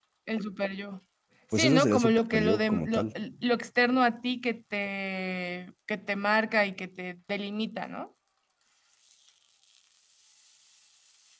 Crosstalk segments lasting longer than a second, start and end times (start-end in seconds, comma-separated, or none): 1.5-3.1